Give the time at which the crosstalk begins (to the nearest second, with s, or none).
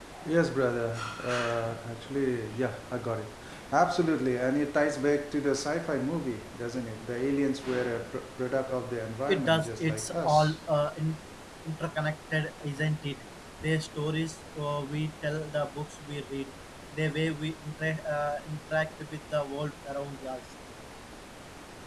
9 s